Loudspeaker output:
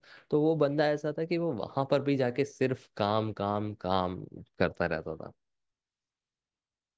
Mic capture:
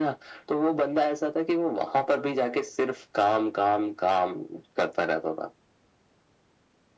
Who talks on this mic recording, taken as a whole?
echo only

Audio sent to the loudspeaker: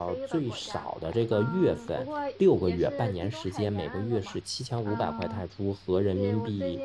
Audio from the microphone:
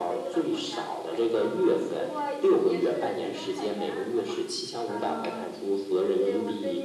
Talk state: echo only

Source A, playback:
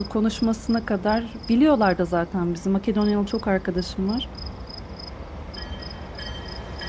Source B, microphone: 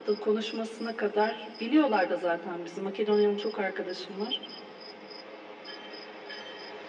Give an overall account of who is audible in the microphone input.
echo only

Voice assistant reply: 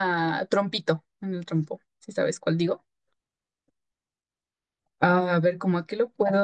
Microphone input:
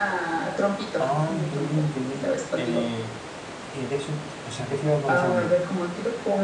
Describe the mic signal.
both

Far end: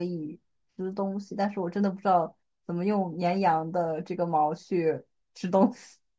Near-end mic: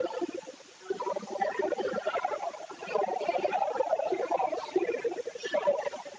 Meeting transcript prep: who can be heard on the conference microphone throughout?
echo only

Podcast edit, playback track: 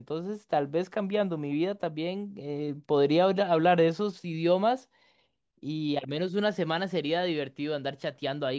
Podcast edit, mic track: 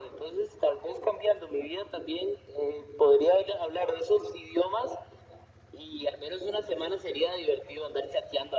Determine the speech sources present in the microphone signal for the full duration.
echo only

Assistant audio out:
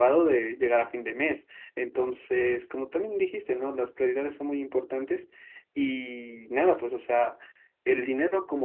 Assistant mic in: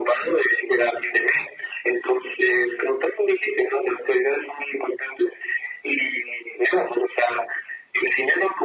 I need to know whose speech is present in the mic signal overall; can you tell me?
echo only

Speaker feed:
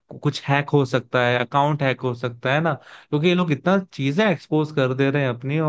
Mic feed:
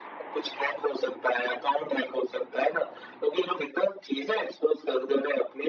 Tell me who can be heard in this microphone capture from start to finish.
echo only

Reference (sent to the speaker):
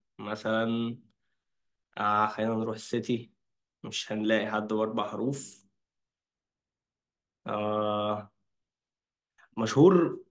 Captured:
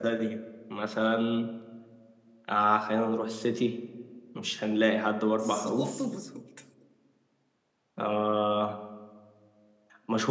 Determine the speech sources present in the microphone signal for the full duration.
both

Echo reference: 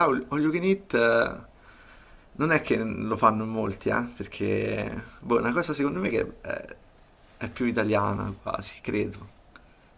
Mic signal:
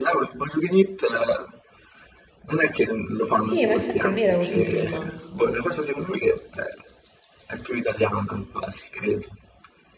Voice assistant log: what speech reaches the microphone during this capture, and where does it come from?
both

